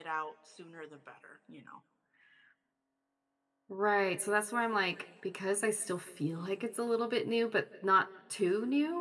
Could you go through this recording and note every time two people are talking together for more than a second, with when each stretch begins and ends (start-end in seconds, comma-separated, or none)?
none